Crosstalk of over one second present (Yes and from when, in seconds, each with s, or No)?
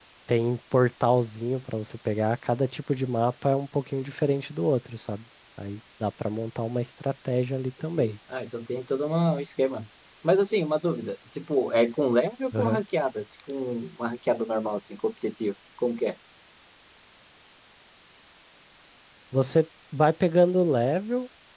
No